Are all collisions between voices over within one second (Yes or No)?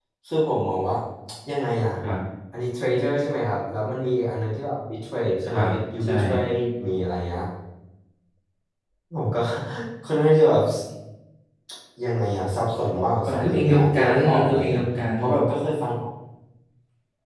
No